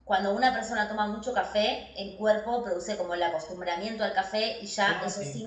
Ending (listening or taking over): listening